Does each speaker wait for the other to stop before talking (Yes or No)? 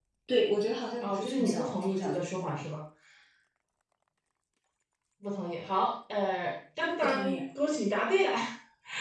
No